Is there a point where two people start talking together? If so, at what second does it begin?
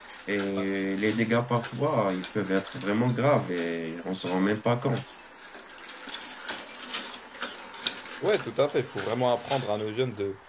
none

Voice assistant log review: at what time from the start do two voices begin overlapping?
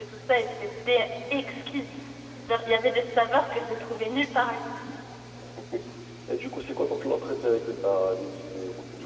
none

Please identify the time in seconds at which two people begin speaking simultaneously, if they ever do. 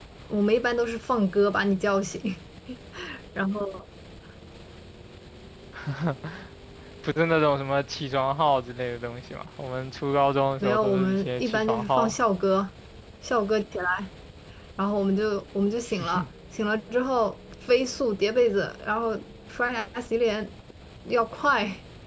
10.6 s

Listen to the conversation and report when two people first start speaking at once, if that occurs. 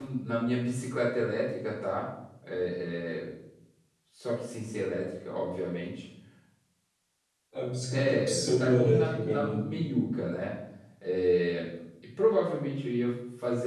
7.9 s

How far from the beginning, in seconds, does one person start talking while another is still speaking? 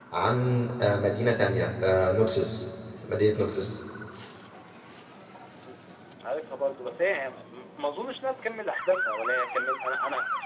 none

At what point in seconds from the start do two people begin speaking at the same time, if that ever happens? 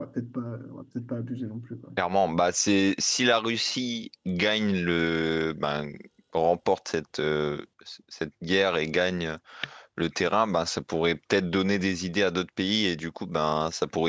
none

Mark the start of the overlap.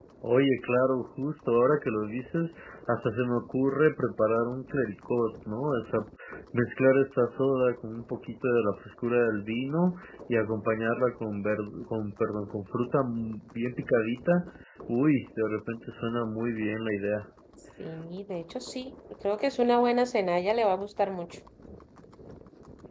none

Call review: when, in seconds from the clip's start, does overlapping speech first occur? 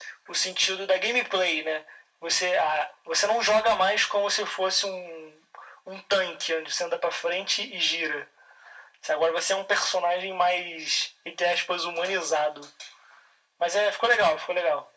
none

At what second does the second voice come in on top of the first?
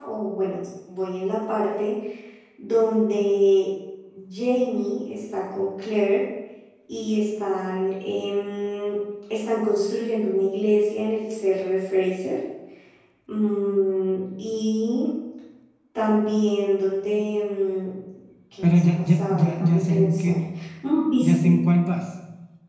18.6 s

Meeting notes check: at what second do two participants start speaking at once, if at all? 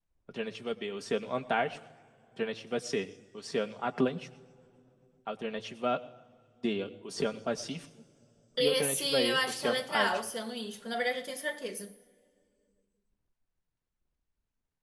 8.6 s

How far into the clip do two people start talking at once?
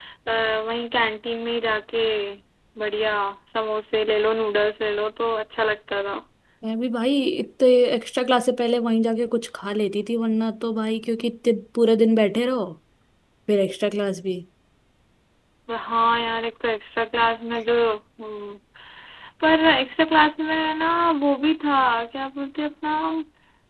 none

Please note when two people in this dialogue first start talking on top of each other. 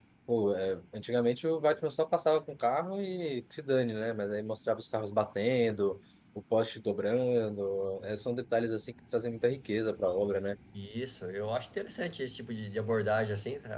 none

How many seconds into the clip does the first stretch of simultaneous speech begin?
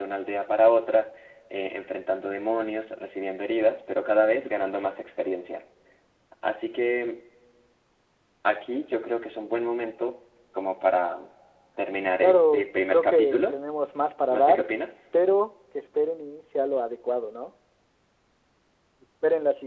12.2 s

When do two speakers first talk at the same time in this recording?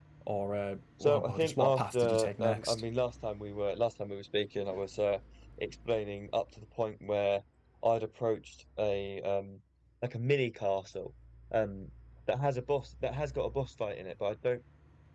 1.0 s

